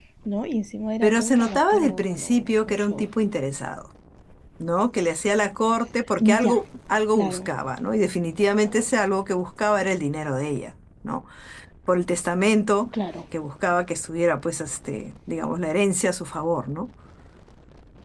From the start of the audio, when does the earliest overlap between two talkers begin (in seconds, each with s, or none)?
1.0 s